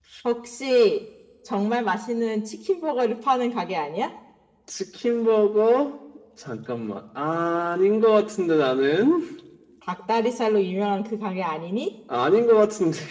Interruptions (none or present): none